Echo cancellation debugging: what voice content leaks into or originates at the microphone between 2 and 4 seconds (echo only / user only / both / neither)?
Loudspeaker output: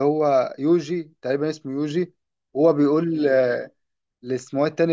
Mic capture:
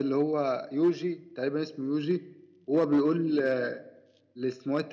echo only